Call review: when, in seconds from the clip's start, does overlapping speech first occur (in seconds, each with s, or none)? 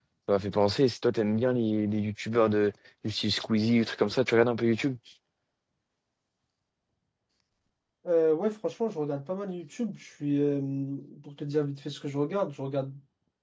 none